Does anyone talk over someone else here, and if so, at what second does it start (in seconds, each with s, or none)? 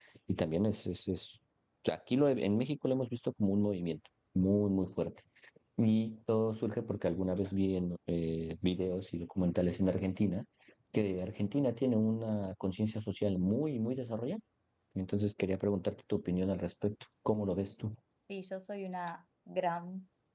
none